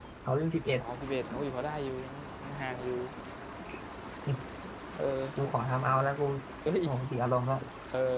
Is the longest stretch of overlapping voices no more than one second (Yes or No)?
Yes